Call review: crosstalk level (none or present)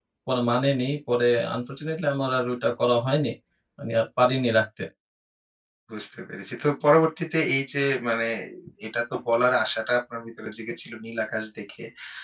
none